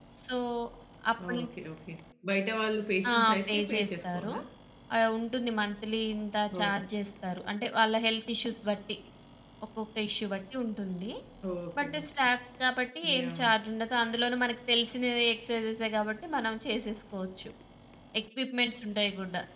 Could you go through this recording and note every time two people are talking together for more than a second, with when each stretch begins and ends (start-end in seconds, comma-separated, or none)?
3.1-4.3